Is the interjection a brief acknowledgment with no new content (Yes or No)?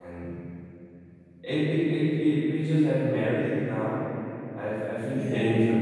Yes